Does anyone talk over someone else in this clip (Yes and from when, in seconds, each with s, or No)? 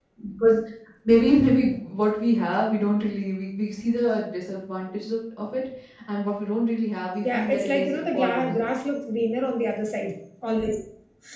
Yes, from 7.2 s